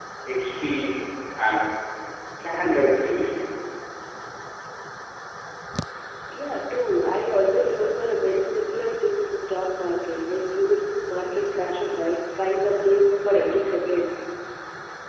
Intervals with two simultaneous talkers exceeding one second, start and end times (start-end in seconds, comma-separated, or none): none